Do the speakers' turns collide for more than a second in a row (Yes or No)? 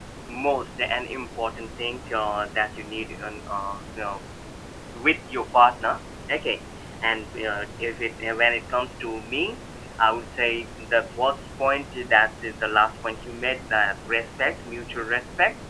No